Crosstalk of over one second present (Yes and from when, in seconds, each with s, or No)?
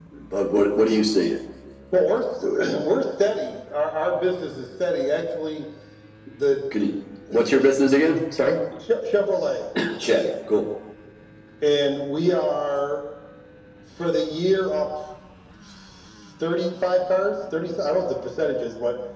No